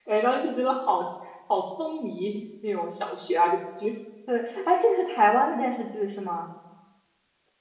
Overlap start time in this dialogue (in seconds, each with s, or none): none